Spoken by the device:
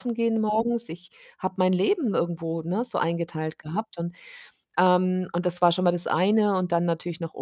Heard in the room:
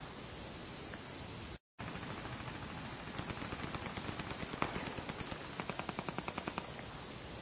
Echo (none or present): none